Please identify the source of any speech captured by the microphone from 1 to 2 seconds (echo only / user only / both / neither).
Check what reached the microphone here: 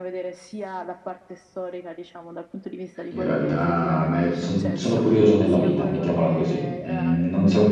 echo only